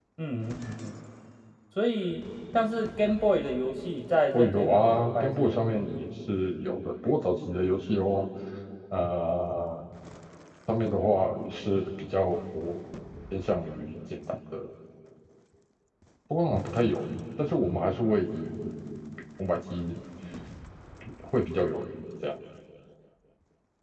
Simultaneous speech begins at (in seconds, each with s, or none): 4.3 s